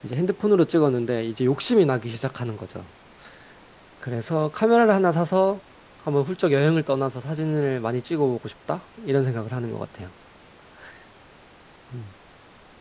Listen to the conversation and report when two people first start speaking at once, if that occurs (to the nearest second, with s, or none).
none